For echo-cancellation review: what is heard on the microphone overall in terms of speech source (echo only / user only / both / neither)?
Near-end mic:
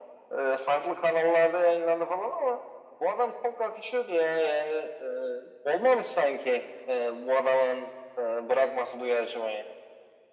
echo only